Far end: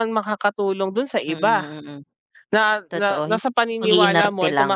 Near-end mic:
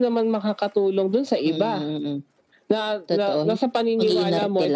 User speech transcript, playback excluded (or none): none